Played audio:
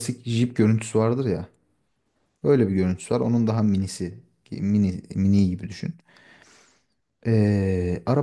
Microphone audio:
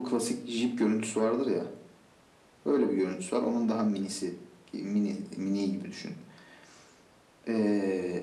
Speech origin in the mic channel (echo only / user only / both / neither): echo only